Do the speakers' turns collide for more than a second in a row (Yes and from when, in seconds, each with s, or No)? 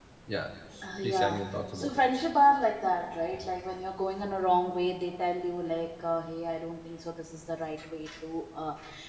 Yes, from 0.8 s